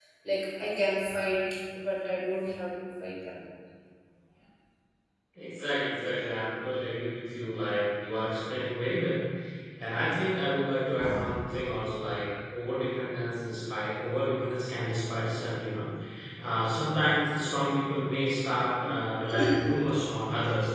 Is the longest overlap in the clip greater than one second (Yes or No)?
No